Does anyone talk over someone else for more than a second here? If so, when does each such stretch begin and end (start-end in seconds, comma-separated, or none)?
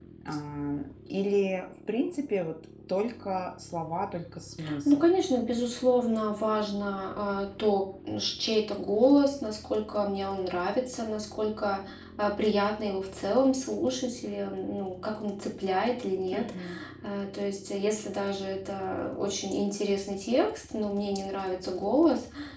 none